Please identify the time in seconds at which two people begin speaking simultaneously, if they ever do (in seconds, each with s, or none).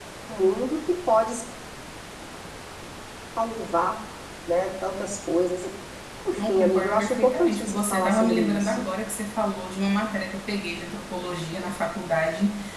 6.3 s